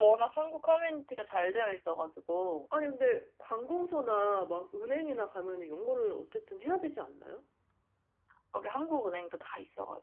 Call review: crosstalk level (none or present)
none